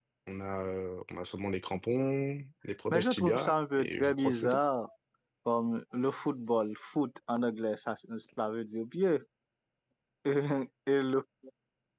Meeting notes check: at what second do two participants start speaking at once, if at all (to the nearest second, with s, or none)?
3 s